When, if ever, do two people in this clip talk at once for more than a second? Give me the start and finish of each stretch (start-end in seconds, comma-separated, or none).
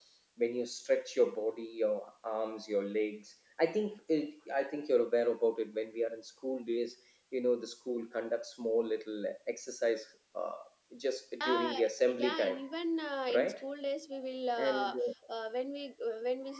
11.4-12.6